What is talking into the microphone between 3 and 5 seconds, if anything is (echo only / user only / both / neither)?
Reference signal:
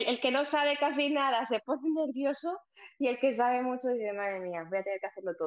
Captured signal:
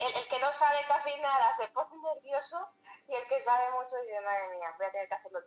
echo only